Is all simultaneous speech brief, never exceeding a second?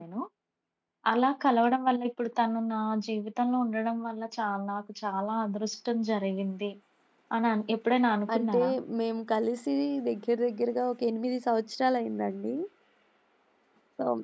Yes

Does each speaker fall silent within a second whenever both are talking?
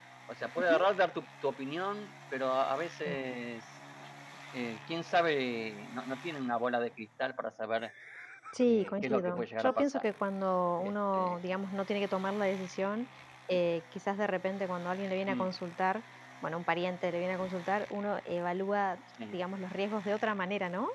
No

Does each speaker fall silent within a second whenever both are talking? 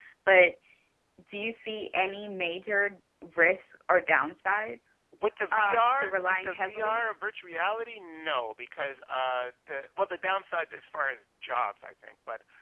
No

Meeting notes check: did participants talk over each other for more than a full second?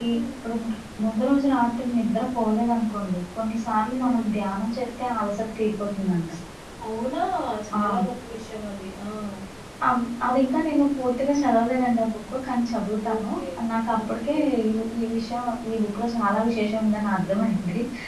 No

